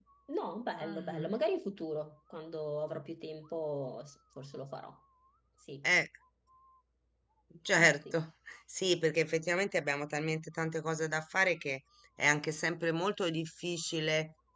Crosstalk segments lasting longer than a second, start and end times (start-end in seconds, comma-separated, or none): none